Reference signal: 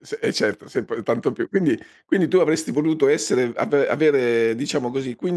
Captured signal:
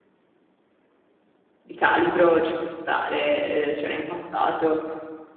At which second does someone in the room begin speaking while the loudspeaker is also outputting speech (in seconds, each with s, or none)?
1.7 s